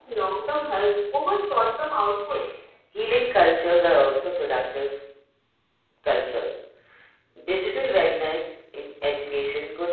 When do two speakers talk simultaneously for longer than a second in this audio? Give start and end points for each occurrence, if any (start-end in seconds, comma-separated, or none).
none